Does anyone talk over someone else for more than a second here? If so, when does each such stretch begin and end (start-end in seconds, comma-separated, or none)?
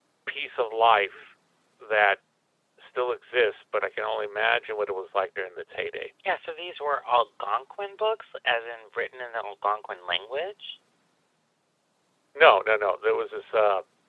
none